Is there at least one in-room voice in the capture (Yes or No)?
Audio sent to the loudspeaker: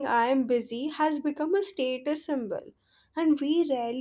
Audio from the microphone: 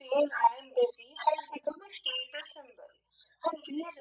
No